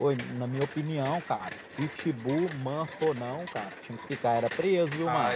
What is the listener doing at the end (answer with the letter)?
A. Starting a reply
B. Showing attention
A